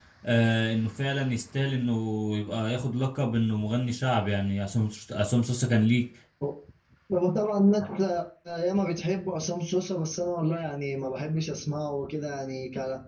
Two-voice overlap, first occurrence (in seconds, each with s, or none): none